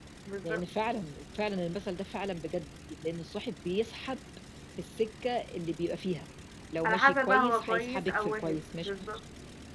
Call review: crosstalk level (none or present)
present